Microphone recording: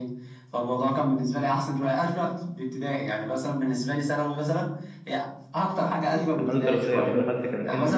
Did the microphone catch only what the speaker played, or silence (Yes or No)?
No